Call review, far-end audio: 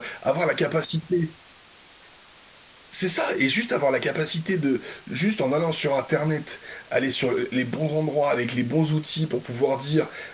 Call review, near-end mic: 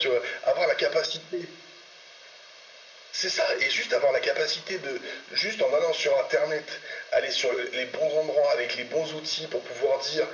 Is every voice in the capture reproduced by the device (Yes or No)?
Yes